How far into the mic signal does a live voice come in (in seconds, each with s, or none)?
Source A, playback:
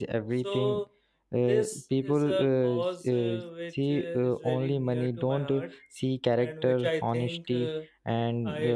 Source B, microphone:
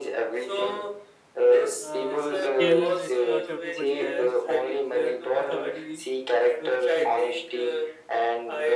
1.8 s